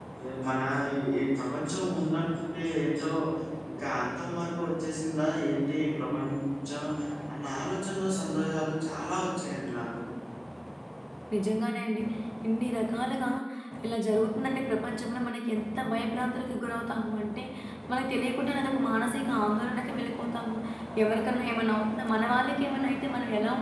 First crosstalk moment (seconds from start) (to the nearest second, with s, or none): none